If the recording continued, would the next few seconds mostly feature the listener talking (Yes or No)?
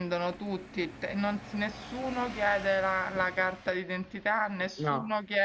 No